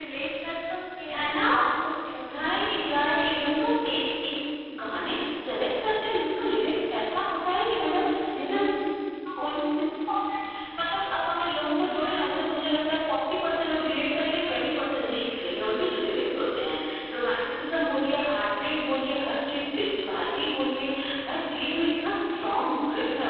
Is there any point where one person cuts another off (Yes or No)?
Yes